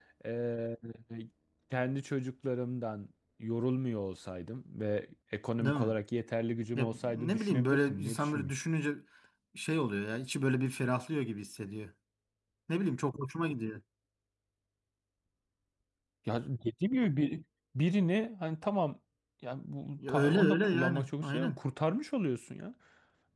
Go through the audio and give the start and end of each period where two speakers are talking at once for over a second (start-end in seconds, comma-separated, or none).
6.8-8.5, 20.1-21.6